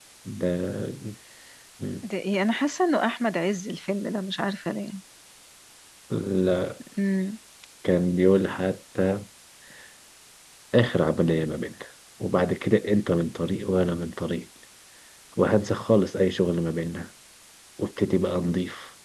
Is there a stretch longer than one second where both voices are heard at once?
No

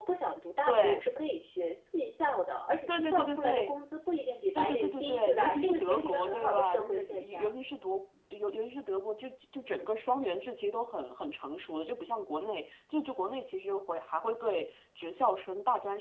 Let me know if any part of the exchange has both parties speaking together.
Yes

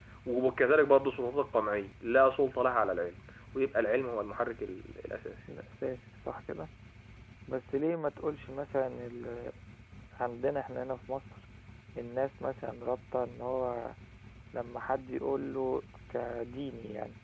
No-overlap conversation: Yes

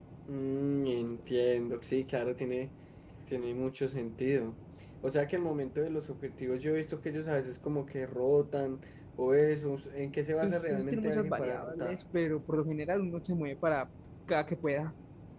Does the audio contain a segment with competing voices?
Yes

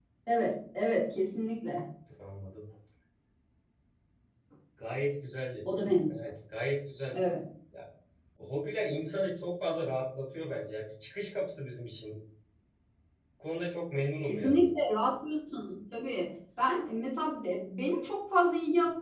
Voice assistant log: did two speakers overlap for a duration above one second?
No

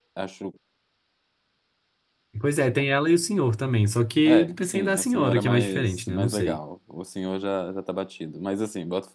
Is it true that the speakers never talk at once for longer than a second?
No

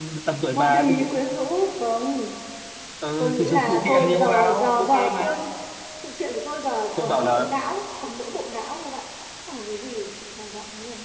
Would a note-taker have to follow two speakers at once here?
Yes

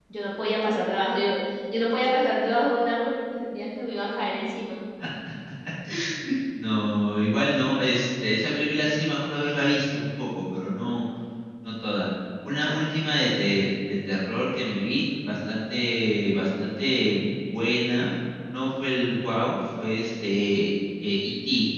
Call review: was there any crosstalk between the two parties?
No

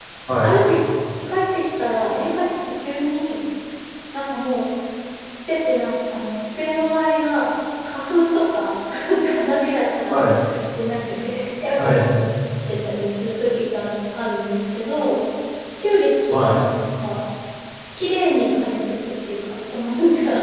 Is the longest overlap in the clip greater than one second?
No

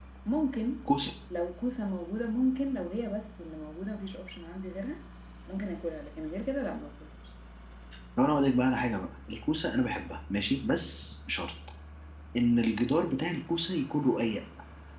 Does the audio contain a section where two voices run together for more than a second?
No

